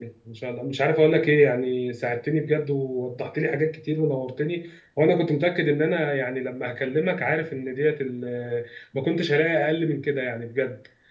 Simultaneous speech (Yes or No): No